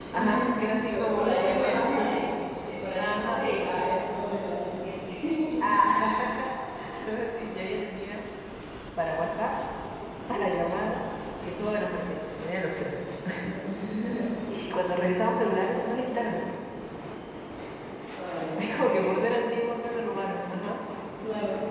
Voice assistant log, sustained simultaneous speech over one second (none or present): present